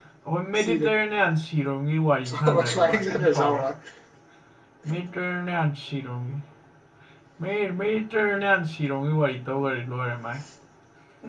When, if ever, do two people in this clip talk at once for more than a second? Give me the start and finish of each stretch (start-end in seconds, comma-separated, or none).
2.3-3.6